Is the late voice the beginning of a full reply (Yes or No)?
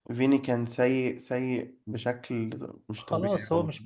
Yes